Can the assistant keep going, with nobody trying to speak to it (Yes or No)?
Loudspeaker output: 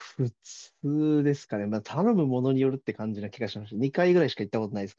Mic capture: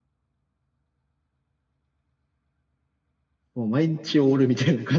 No